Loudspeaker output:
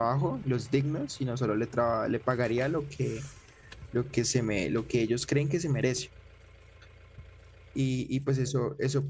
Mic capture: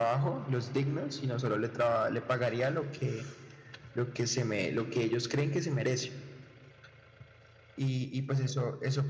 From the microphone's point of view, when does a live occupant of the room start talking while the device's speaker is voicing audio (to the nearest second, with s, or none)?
none